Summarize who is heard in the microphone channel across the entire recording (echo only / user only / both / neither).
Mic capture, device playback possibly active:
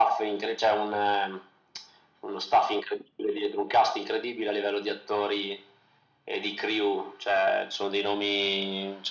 echo only